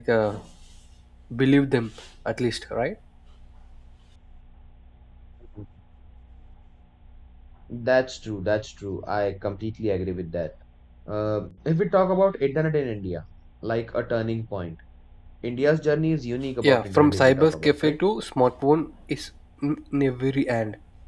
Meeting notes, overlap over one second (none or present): present